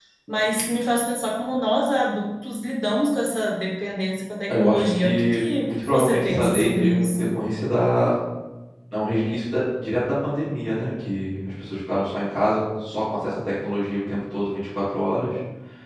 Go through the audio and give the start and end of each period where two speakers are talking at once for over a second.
4.5-7.3

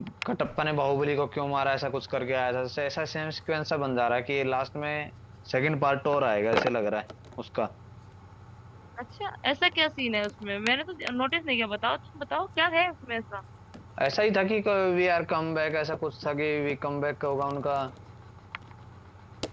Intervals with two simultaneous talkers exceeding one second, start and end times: none

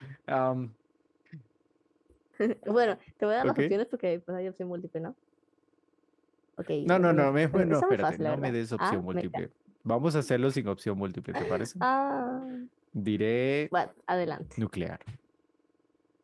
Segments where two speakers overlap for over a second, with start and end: 6.8-9.2

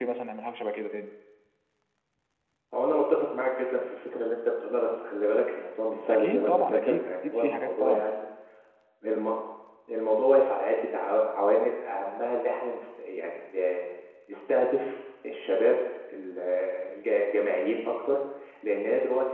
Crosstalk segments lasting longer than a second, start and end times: 6.0-8.0

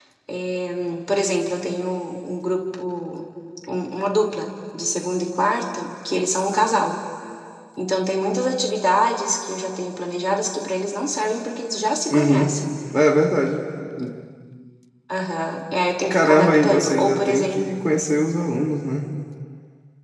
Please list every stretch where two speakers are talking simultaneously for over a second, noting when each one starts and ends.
16.1-17.6

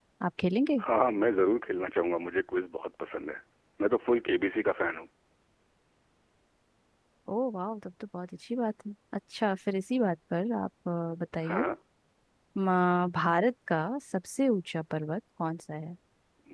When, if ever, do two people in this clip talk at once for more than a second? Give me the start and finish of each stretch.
none

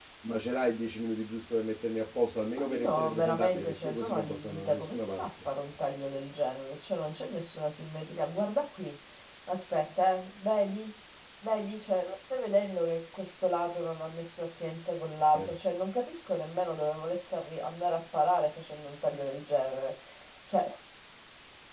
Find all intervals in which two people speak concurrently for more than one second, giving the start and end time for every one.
2.8-5.2

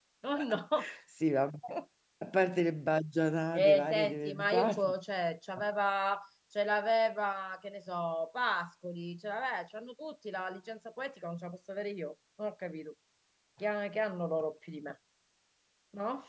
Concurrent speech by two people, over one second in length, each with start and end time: 3.5-4.9

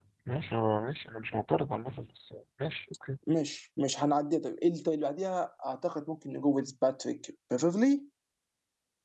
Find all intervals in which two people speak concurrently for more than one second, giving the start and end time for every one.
none

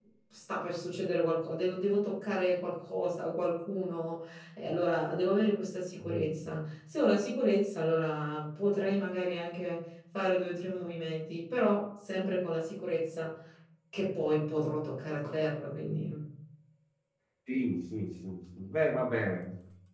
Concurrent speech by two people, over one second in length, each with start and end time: none

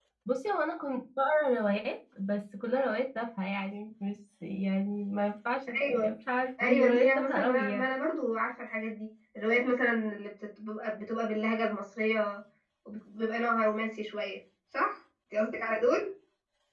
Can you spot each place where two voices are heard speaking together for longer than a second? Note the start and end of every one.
6.6-7.9

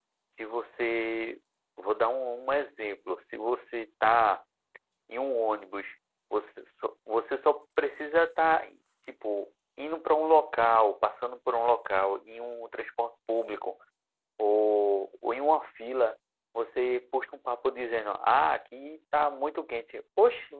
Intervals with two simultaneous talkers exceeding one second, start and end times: none

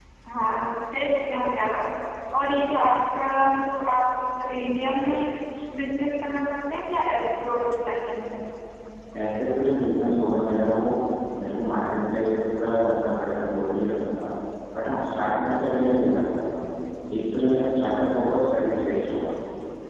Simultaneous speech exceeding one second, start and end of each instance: none

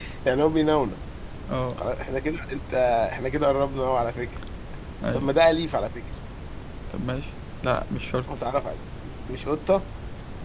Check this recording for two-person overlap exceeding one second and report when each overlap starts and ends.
none

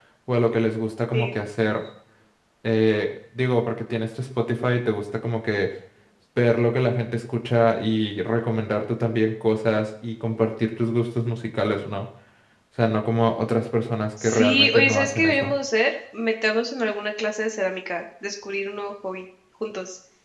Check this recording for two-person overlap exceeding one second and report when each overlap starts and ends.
14.2-15.5

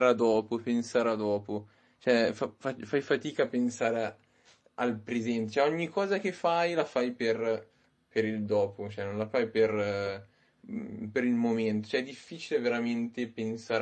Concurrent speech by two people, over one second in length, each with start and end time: none

